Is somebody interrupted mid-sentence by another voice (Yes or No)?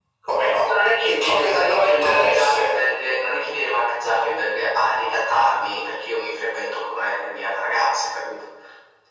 Yes